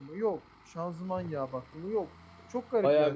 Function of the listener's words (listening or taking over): taking over